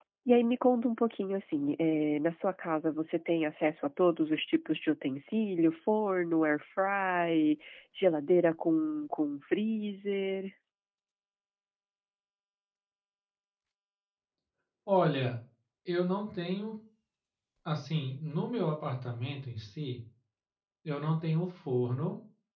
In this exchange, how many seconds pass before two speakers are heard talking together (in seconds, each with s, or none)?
none